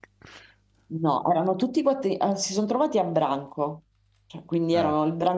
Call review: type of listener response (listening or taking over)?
listening